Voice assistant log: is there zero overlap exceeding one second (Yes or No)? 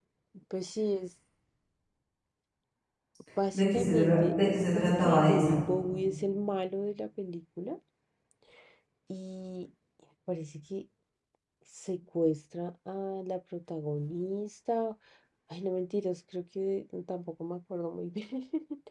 No